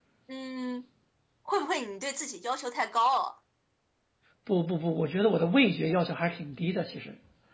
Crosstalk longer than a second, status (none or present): none